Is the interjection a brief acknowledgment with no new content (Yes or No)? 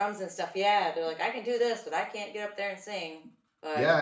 No